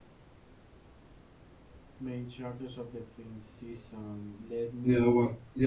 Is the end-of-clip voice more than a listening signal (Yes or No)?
Yes